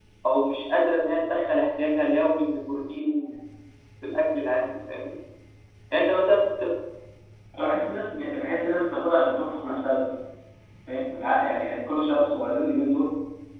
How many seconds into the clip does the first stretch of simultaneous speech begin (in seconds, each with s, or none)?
none